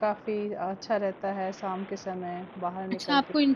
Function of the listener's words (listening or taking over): taking over